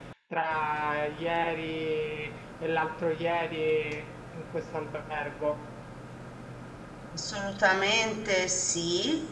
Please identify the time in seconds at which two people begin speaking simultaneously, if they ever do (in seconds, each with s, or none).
none